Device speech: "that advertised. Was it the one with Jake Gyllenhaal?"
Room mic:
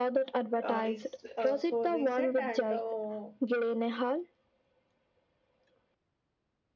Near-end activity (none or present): present